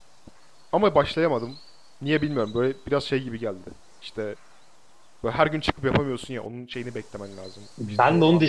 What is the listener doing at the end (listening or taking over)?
taking over